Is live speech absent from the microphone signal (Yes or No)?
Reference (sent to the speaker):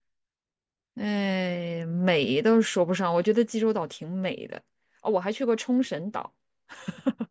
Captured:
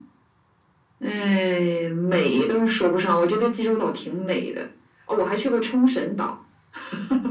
Yes